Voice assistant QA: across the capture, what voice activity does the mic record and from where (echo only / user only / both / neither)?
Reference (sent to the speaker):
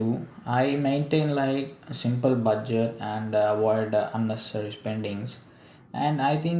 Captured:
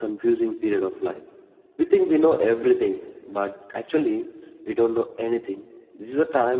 user only